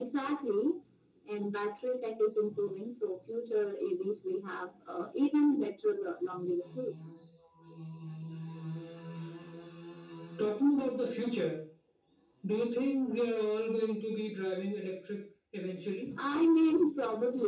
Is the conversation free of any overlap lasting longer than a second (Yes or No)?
Yes